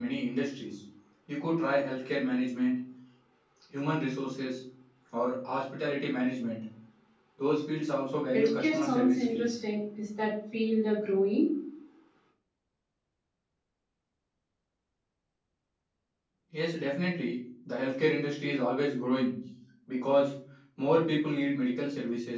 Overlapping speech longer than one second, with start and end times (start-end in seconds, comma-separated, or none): 8.3-9.5